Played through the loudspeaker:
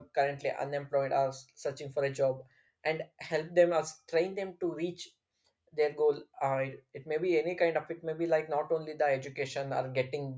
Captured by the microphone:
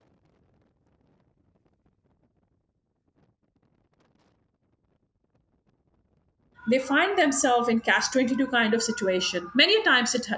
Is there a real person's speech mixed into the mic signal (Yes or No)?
Yes